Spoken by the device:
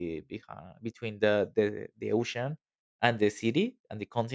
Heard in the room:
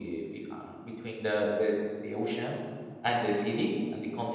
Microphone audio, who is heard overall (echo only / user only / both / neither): echo only